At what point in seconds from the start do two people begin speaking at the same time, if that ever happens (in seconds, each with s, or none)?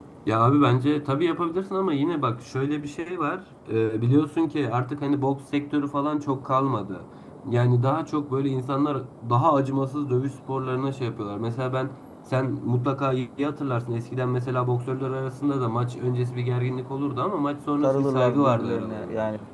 17.8 s